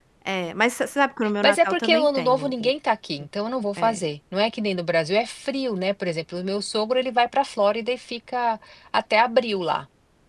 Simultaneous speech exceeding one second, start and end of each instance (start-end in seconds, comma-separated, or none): 1.4-2.7